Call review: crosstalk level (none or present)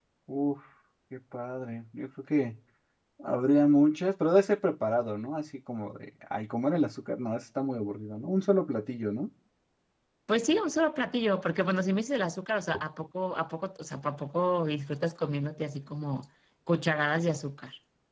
none